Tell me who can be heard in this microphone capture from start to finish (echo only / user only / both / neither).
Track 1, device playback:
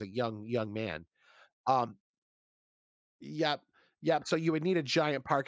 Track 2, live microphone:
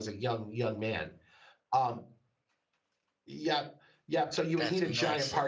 both